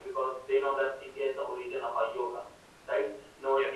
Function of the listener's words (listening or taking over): listening